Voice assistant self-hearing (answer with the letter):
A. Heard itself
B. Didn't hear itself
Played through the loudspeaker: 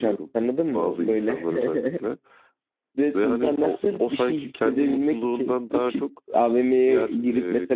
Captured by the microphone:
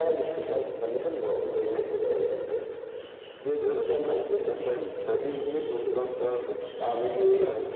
A